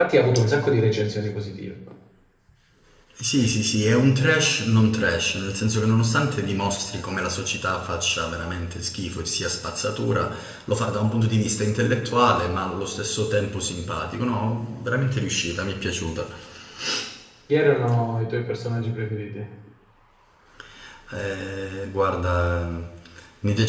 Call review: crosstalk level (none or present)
none